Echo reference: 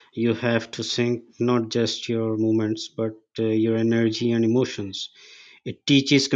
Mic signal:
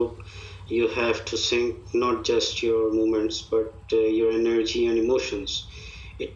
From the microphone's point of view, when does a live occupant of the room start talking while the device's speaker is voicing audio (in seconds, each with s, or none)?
none